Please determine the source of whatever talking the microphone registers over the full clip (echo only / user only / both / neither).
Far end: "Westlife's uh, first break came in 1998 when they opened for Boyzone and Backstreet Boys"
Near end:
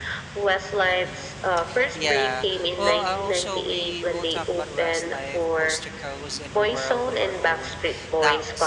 both